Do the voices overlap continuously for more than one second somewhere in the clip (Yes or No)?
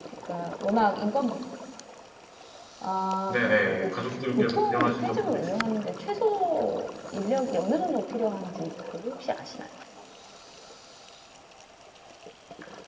Yes